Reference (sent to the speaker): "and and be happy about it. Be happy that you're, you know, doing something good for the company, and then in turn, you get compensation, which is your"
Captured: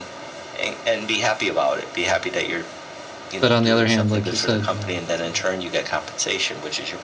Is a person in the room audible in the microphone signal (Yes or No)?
Yes